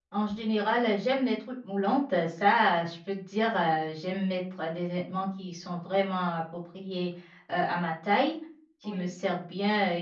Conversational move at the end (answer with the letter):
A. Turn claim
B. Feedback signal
B